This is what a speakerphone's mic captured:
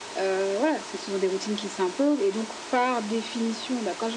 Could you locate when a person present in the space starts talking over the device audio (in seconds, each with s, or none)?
none